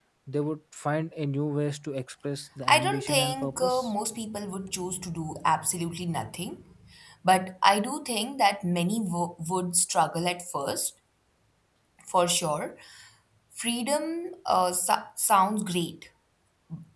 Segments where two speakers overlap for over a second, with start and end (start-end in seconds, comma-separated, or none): 2.7-3.9